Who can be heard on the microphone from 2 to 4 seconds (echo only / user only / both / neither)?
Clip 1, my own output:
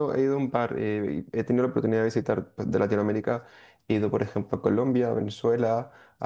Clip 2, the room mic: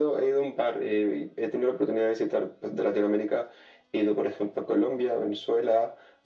echo only